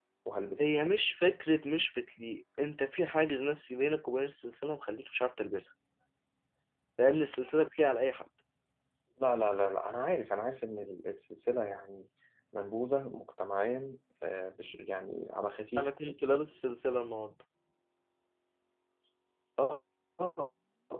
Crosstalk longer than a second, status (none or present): none